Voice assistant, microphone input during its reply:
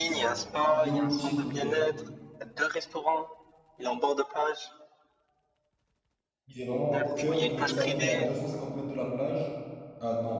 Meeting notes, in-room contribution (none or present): present